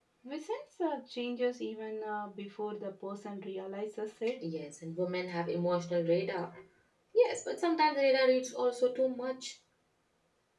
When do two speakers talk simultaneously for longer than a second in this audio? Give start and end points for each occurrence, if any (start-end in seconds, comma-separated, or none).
none